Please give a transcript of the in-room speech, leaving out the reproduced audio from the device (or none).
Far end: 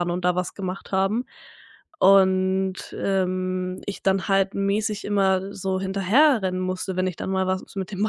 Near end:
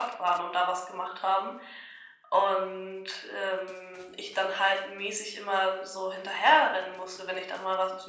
none